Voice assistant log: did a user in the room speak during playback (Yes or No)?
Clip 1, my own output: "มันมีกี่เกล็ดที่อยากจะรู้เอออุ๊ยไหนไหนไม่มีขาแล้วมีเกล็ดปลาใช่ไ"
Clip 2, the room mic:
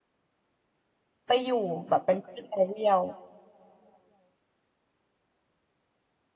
Yes